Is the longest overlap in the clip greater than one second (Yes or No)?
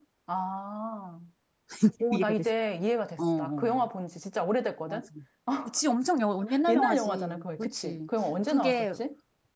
Yes